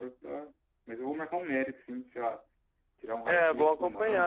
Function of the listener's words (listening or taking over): taking over